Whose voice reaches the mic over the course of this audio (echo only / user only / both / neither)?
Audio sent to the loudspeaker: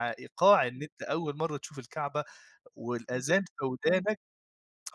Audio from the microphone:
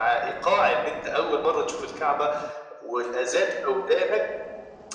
echo only